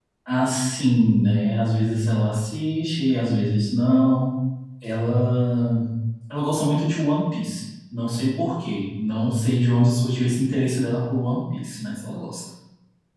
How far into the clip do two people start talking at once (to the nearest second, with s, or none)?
none